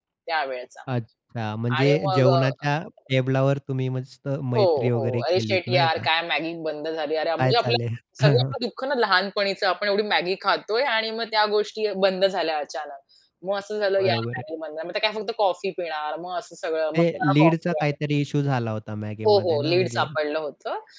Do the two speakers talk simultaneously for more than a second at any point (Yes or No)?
Yes